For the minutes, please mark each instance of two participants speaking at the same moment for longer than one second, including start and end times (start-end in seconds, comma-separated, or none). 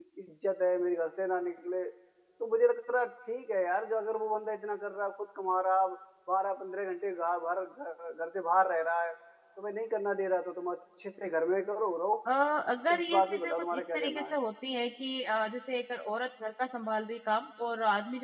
12.9-14.3